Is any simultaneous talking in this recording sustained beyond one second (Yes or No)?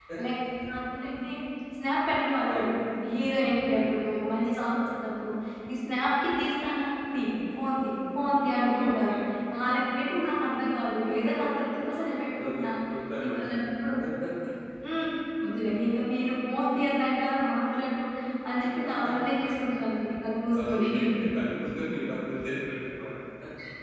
No